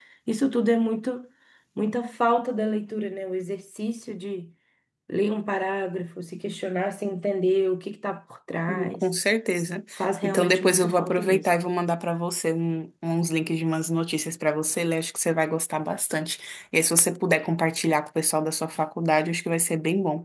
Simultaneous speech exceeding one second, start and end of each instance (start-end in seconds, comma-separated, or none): 10.2-11.5